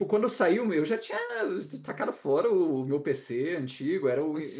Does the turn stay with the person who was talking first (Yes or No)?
Yes